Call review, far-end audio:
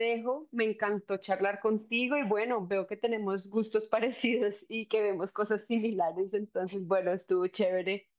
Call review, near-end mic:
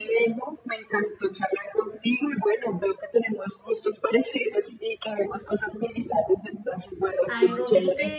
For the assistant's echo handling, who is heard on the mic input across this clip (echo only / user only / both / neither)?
both